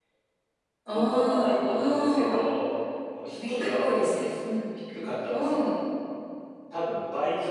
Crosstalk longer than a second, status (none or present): present